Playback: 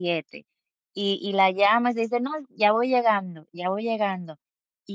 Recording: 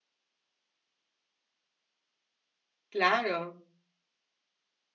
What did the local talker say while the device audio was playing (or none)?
claro.